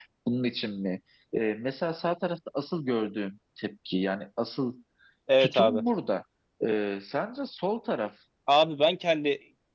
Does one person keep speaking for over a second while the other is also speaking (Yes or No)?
No